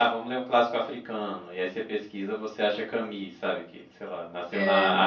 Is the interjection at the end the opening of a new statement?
No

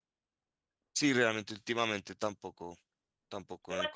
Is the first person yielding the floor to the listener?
Yes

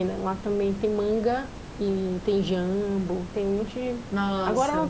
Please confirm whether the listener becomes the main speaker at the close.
No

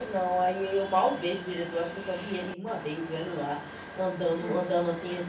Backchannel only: Yes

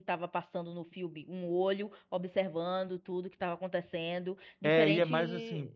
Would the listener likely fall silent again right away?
No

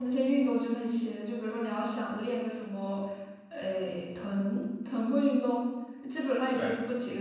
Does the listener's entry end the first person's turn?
No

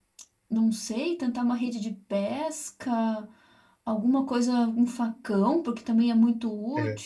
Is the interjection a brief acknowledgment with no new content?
Yes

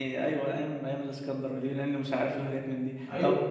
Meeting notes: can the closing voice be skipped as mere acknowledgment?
Yes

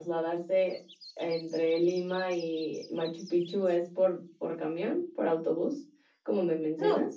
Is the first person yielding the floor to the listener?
Yes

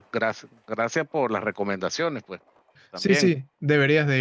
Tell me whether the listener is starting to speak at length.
Yes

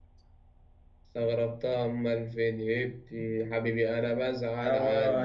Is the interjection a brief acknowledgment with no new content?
No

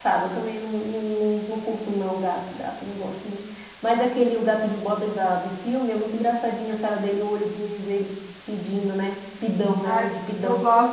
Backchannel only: No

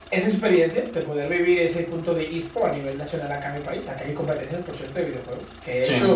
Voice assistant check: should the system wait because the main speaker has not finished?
Yes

